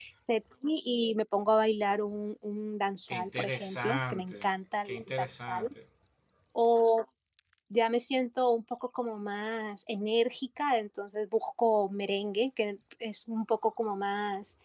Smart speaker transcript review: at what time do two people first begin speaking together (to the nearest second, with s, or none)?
3 s